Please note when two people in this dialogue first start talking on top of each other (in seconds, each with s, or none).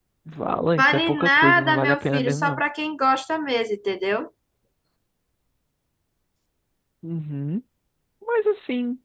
0.8 s